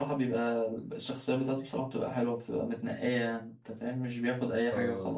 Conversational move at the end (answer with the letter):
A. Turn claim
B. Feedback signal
A